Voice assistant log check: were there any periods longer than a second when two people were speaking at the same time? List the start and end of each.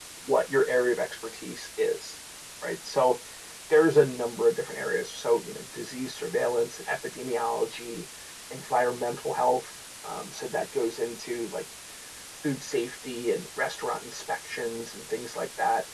none

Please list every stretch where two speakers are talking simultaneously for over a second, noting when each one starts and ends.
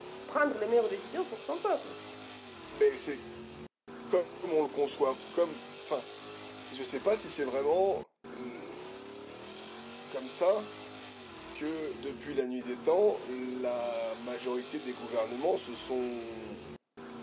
none

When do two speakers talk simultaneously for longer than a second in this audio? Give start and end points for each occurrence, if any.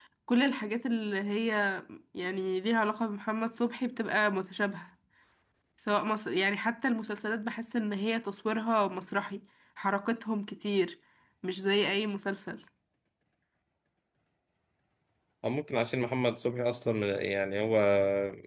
none

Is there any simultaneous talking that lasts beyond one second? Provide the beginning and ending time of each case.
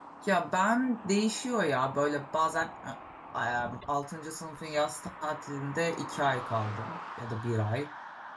none

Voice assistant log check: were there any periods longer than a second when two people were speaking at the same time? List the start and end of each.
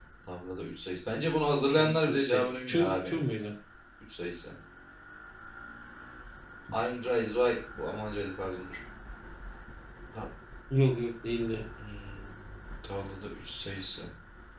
1.8-3.2

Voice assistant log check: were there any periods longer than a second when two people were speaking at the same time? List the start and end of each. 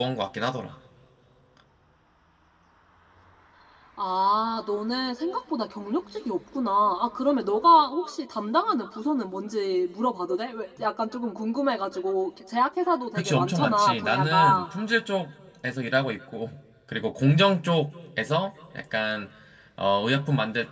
13.2-14.6

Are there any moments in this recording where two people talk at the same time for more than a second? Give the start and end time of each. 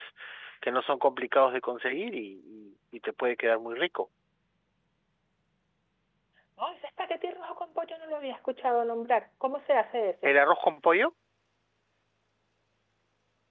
none

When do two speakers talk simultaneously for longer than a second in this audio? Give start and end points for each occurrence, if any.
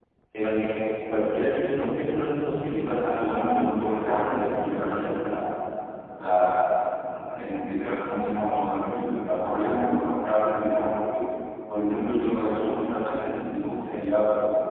2.5-5.0

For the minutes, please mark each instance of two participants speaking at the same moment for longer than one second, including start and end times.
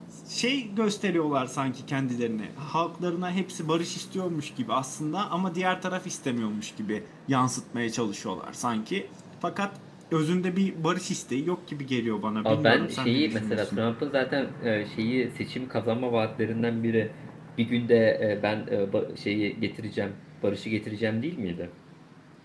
12.4-13.8

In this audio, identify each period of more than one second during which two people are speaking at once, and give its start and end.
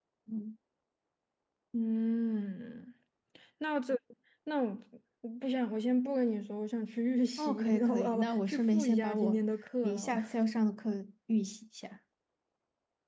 7.4-9.4

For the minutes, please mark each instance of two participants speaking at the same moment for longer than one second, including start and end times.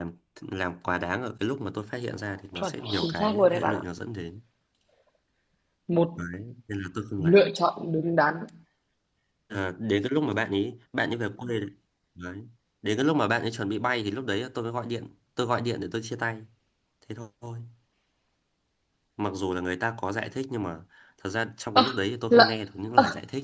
2.5-3.8

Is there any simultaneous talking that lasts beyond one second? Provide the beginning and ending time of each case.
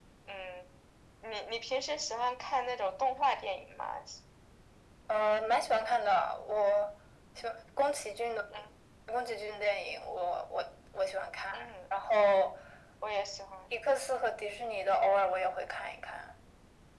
none

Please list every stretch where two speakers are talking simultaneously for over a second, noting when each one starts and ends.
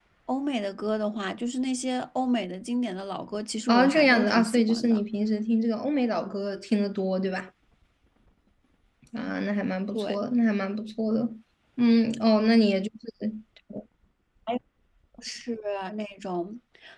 3.7-5.0

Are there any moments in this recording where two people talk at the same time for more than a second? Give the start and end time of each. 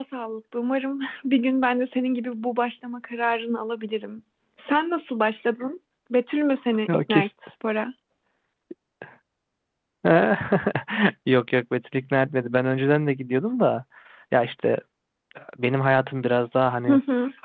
none

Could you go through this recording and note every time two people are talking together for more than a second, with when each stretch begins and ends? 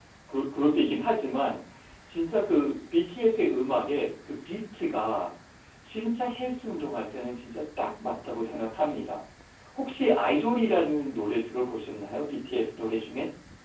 none

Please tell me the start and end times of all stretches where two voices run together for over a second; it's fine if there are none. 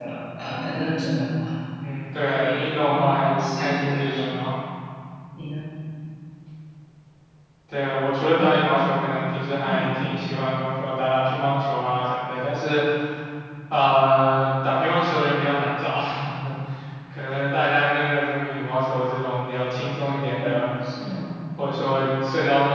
2.3-4.4

